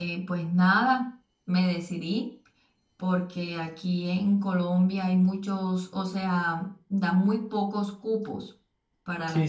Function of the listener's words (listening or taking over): taking over